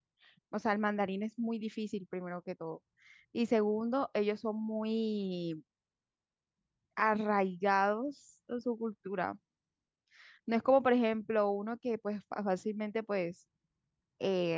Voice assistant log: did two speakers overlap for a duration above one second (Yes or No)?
No